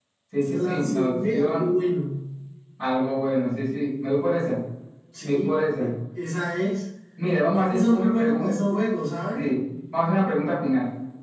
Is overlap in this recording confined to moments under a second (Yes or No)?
No